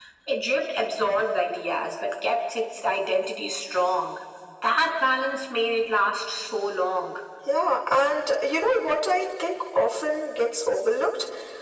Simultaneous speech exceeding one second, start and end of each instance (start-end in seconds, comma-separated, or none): none